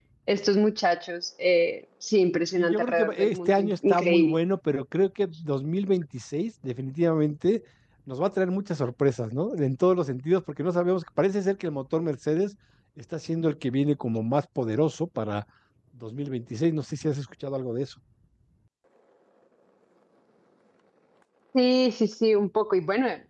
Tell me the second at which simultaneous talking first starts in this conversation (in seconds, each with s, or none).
2.6 s